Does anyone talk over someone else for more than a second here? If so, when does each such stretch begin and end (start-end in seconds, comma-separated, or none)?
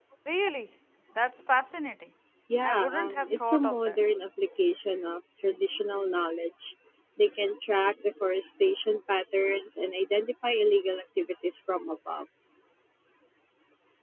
2.6-4.0